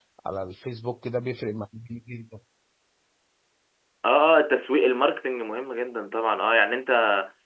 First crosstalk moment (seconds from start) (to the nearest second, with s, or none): none